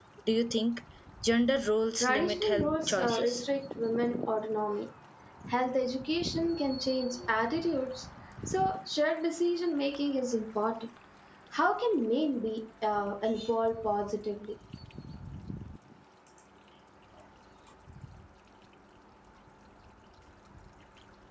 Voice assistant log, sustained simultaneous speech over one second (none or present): present